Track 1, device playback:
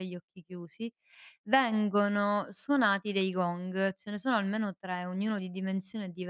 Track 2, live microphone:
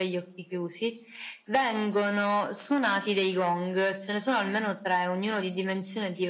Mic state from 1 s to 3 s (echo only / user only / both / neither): echo only